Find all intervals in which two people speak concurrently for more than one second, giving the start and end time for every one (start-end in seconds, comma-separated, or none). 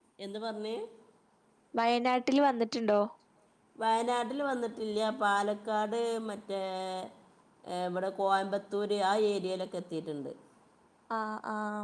none